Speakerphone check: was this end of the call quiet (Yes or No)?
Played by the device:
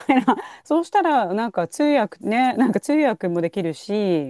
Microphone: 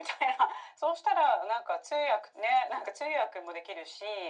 Yes